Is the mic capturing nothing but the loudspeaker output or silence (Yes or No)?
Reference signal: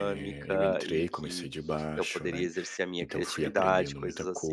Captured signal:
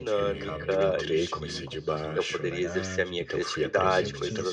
No